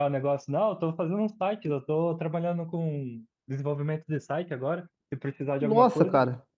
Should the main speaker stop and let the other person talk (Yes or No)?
Yes